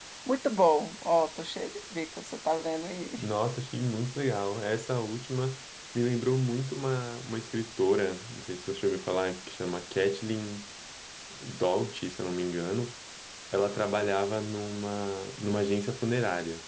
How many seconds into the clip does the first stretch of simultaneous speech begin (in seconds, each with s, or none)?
none